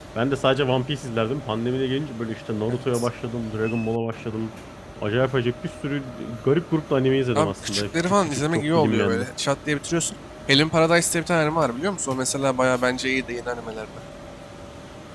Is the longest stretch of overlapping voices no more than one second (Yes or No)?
No